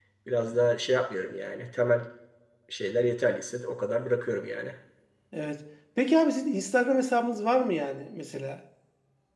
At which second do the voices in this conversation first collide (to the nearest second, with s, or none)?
none